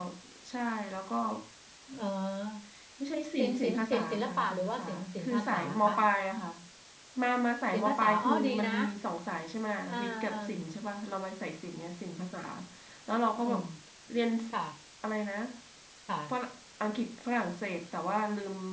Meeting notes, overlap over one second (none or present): present